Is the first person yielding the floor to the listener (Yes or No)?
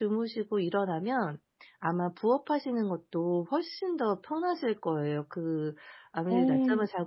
No